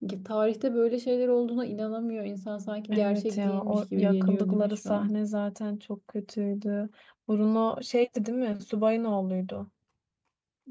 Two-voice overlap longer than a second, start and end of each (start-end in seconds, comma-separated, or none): 2.9-5.1